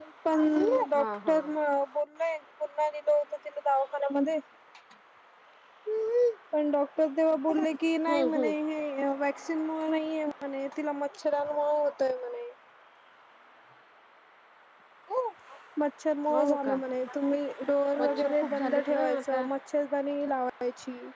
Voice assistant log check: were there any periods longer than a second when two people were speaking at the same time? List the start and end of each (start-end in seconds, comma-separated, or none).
18.0-19.4